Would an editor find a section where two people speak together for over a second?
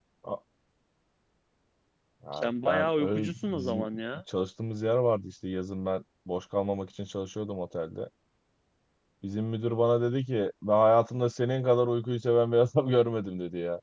Yes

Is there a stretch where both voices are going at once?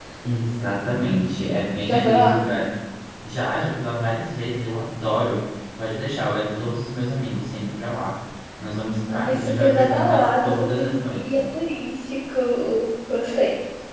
Yes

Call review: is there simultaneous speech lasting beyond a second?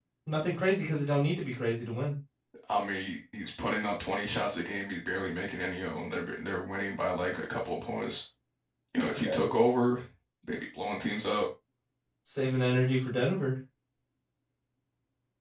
No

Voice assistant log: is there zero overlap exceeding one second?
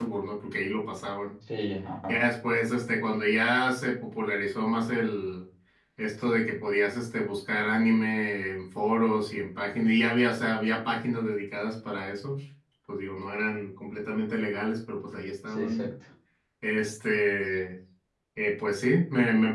Yes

